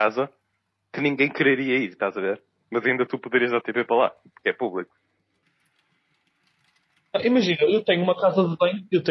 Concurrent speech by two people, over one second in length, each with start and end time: none

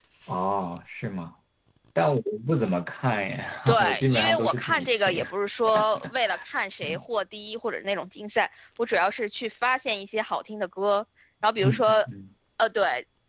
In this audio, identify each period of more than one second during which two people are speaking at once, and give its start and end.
3.8-5.2

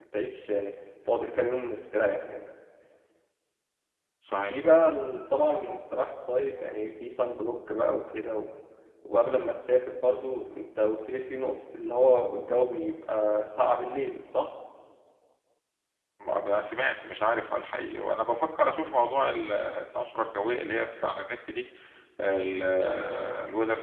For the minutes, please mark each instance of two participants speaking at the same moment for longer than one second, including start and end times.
none

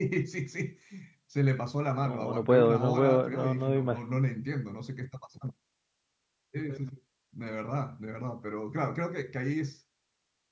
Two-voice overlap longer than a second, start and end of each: 2.0-4.0

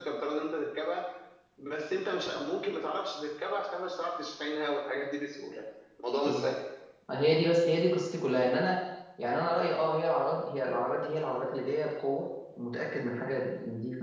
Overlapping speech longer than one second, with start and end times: none

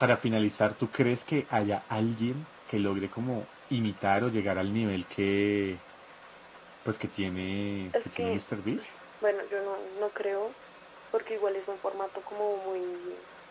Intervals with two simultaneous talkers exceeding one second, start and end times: none

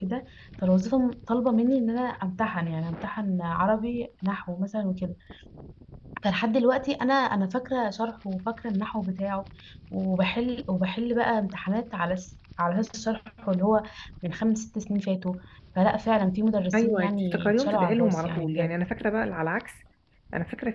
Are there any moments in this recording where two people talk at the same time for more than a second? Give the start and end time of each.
16.7-18.7

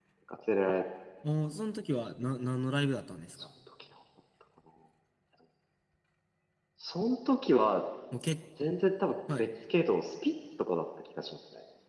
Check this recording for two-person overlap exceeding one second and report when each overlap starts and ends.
none

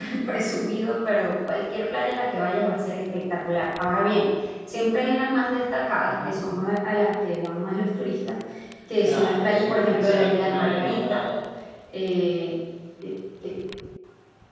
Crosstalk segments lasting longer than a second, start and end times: 9.0-11.2

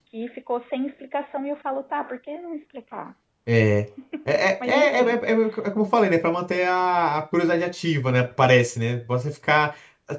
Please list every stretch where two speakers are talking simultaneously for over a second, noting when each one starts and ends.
none

